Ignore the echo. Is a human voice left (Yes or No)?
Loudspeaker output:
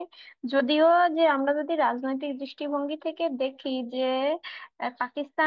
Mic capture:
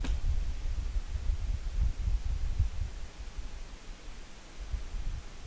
No